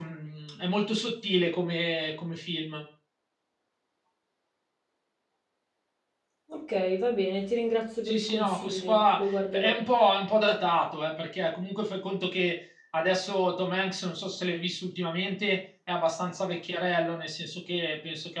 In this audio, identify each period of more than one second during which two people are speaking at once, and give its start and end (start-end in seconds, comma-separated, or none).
8.1-9.8